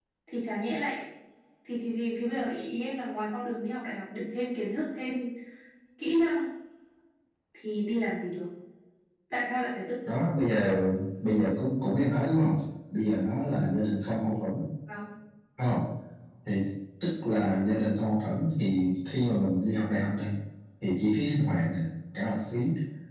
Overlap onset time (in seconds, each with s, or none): none